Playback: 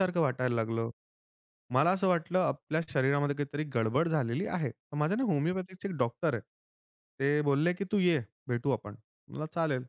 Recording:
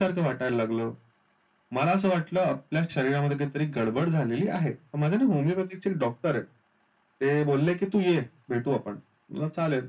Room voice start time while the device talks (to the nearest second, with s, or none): none